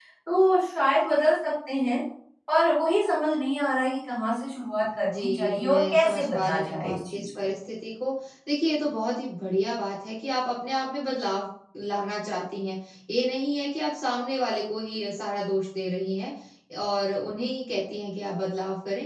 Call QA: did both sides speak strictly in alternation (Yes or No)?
No